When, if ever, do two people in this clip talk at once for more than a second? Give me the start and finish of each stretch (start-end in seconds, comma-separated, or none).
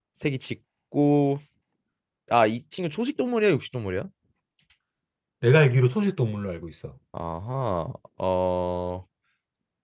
none